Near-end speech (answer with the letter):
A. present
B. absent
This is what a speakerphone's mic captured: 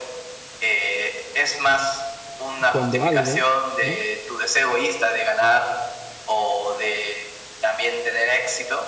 A